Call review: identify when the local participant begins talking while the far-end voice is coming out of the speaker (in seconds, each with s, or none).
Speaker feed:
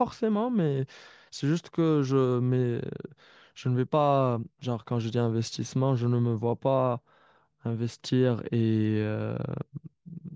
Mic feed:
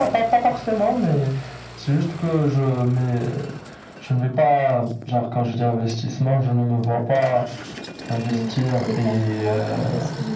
8.3 s